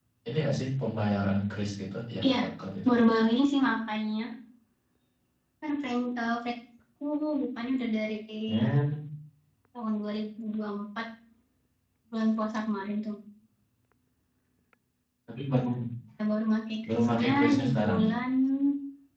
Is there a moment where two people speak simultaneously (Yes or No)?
Yes